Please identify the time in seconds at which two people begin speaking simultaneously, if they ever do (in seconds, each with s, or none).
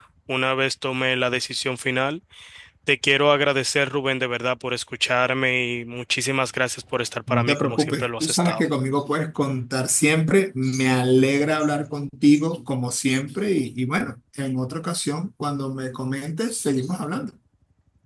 7.3 s